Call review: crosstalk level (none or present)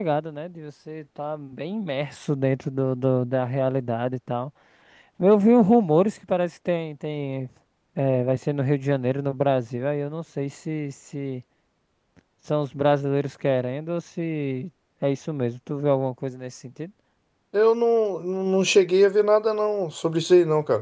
none